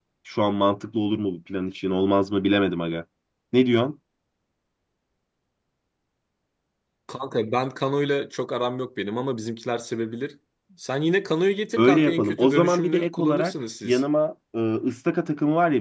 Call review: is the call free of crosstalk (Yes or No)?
No